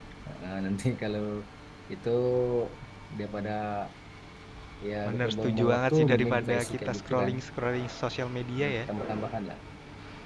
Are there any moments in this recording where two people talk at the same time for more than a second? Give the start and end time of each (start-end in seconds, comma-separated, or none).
5.1-7.3